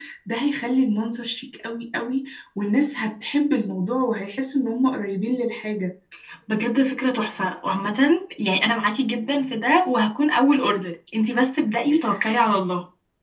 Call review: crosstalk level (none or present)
none